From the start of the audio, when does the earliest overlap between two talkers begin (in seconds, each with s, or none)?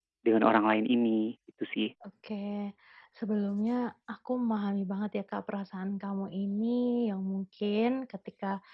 none